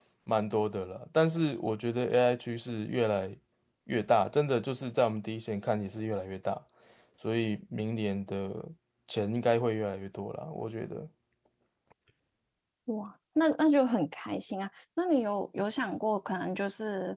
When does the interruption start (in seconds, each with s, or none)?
none